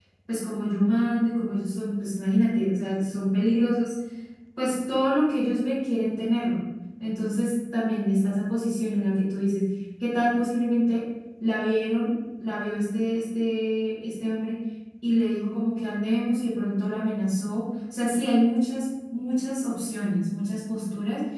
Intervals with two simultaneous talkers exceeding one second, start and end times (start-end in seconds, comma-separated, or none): none